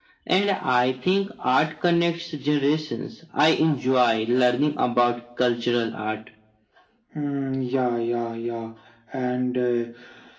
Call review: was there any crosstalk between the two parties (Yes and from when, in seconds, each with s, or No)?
No